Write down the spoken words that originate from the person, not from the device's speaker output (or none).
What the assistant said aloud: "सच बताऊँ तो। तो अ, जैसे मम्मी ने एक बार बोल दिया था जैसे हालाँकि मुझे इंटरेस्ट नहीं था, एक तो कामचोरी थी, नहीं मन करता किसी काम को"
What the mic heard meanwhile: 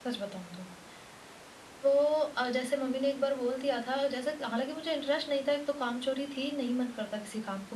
none